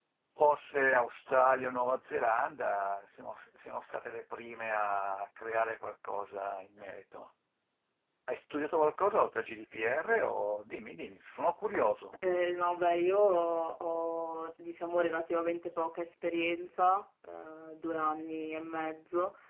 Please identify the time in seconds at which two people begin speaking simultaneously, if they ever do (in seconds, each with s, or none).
none